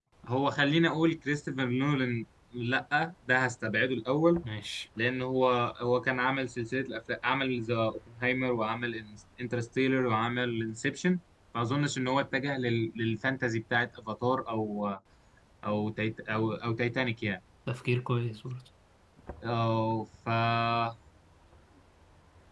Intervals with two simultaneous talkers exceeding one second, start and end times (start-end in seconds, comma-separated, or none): none